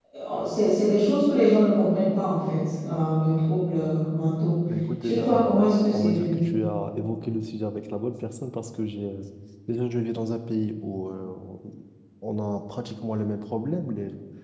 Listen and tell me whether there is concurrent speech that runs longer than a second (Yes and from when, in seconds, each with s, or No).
Yes, from 5.0 s